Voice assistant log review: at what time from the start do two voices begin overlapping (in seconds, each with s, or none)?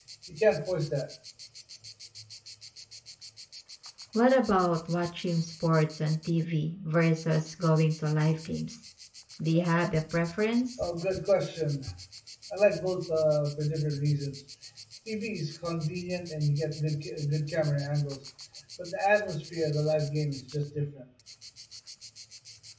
none